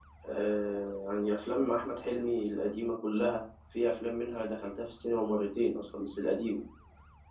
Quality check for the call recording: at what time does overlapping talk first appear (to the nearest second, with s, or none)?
none